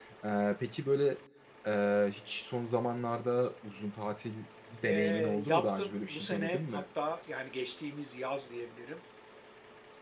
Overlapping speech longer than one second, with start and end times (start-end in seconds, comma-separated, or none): 4.8-6.8